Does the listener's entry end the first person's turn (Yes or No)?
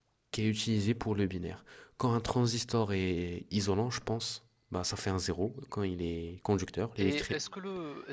Yes